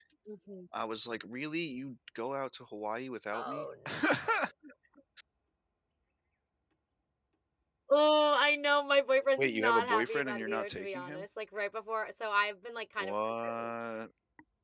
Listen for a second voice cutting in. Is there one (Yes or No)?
Yes